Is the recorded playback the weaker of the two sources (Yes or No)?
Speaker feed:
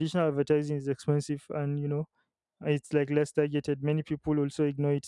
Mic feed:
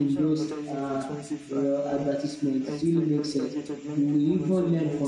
Yes